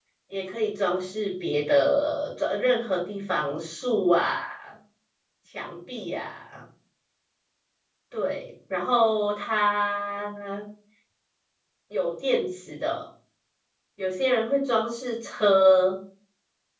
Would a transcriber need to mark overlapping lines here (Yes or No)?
No